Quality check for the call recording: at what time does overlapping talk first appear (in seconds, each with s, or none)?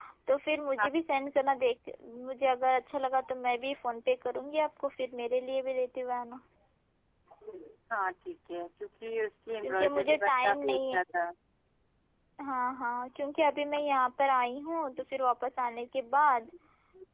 9.6 s